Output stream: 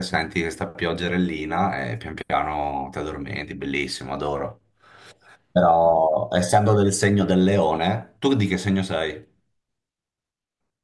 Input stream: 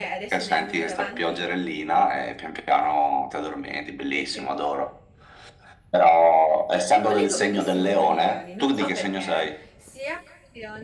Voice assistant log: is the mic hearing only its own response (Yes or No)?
No